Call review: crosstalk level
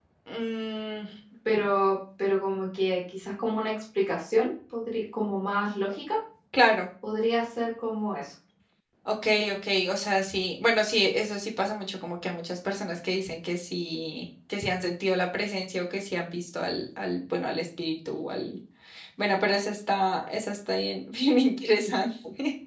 none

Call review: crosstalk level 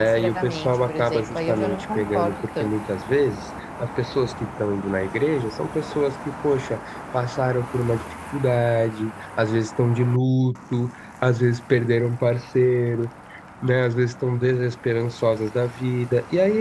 present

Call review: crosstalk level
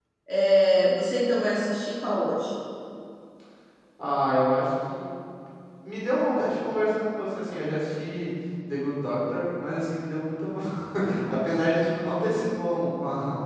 none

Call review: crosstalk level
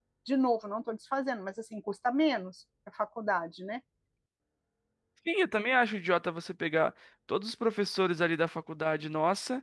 none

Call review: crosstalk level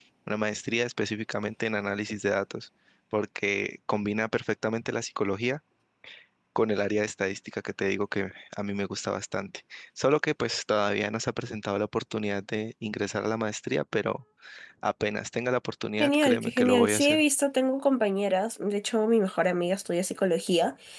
present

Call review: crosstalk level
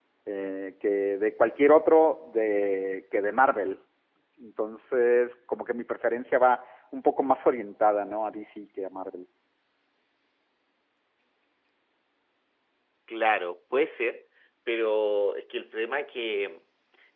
none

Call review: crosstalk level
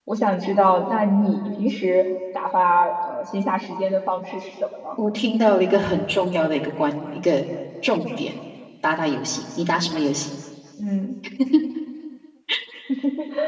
none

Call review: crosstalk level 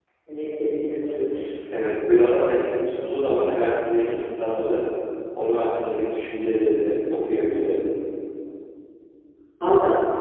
none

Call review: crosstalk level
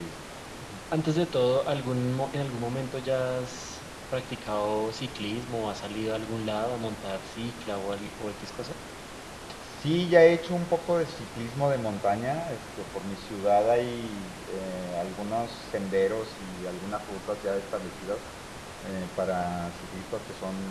none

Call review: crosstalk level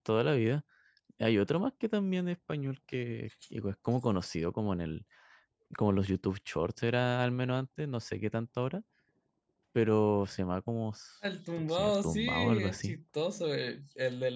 present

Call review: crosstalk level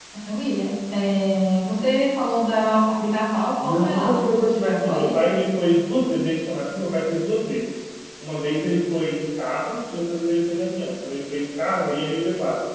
present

